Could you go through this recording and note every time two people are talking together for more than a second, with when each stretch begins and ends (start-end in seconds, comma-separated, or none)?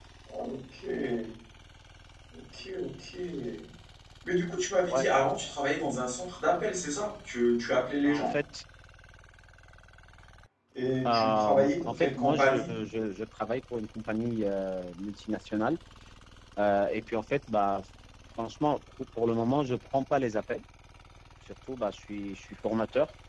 11.1-12.7